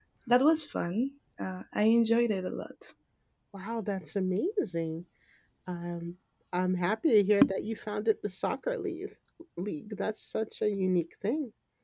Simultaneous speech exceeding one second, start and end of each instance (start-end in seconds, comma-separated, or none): none